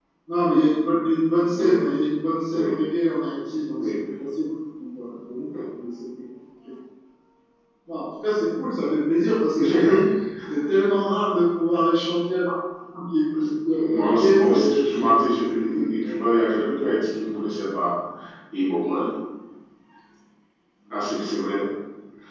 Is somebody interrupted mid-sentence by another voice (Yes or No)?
Yes